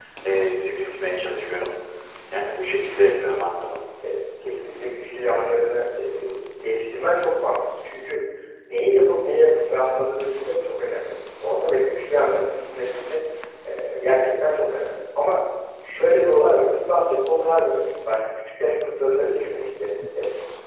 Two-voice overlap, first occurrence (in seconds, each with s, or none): none